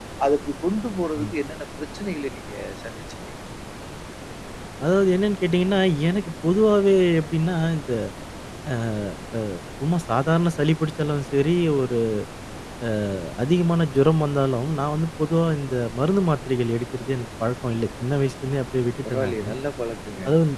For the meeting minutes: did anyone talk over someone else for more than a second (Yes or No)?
No